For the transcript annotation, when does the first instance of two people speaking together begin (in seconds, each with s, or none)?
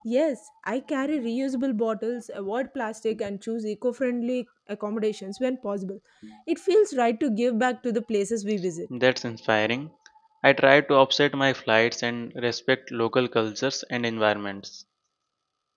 none